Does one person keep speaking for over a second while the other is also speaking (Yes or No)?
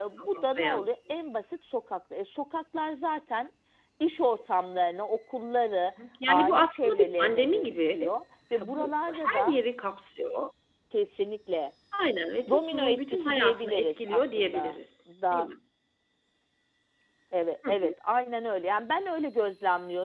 Yes